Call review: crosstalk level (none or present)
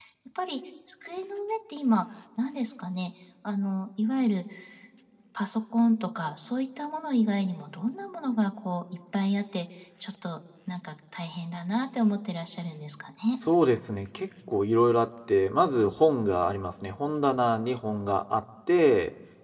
none